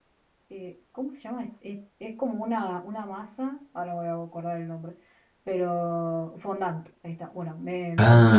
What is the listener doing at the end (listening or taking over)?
listening